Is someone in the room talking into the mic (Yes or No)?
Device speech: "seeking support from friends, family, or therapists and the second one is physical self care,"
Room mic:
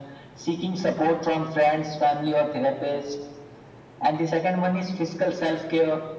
No